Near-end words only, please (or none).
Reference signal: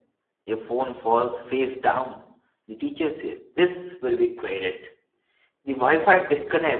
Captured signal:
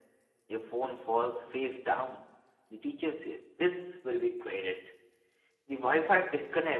none